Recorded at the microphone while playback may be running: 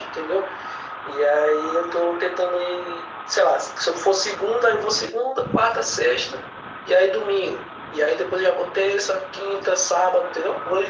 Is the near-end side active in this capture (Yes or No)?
No